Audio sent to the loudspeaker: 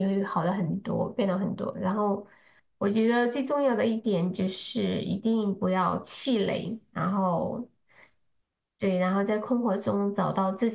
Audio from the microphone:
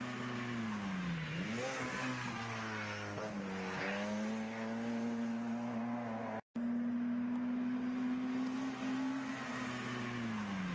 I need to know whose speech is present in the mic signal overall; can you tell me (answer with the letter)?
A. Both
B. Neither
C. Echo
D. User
B